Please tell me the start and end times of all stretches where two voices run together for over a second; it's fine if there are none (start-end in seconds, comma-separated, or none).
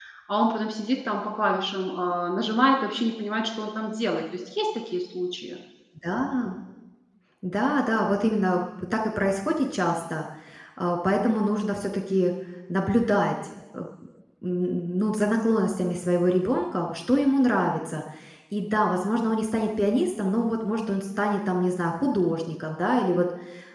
none